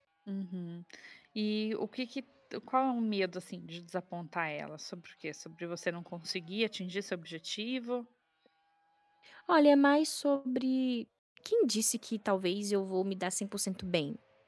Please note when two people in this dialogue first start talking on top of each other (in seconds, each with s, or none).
none